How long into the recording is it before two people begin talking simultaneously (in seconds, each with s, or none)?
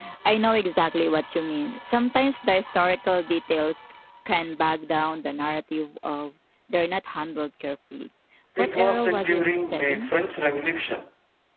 8.6 s